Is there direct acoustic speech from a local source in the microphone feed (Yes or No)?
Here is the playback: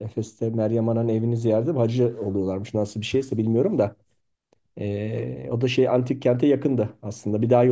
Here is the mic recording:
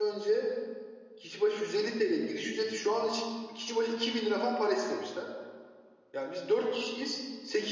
Yes